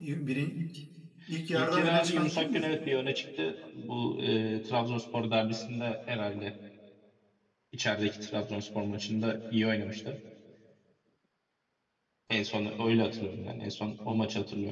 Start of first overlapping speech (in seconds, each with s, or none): 1.5 s